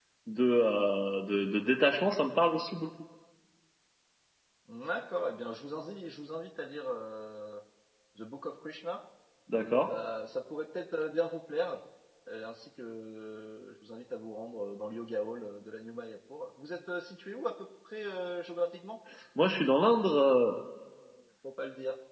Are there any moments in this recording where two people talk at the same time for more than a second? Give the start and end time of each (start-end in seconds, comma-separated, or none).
none